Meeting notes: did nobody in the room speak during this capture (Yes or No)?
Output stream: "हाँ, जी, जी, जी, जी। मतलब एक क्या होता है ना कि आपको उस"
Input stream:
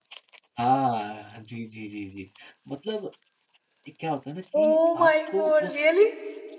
No